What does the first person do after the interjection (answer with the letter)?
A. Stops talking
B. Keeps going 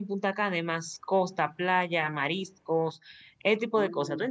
A